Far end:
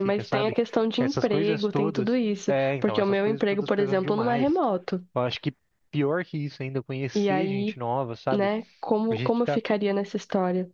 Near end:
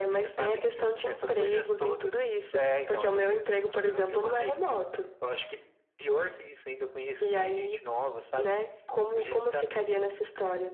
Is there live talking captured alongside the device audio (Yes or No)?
No